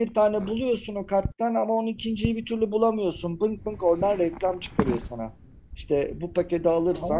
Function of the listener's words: listening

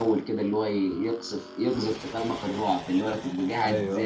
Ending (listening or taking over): listening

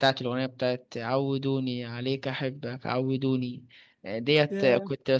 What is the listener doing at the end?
listening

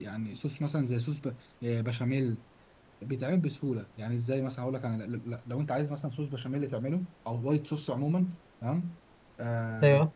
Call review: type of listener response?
listening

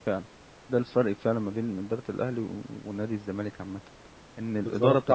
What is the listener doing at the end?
listening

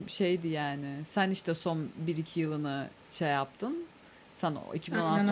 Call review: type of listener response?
listening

